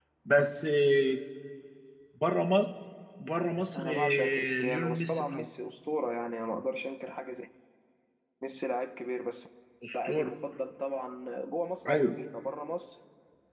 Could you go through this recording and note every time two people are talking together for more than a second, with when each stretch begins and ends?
3.8-5.5

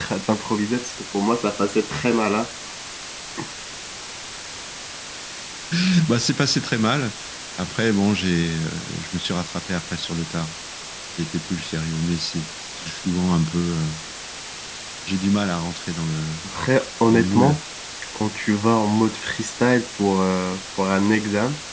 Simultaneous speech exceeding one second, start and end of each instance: none

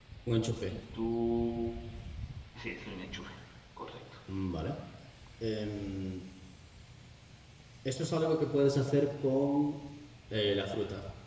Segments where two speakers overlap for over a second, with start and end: none

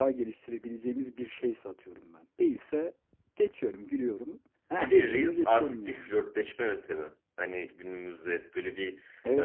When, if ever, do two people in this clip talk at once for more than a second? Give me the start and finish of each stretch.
4.8-6.1

